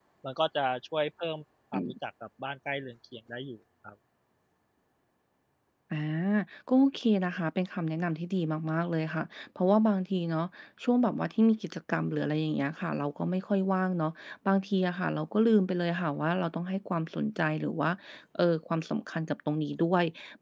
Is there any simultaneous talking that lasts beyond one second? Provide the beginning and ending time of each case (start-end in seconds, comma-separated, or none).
none